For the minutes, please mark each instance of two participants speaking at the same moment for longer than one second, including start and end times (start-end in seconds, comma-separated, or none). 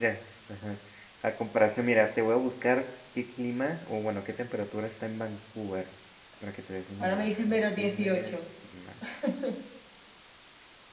7.0-8.4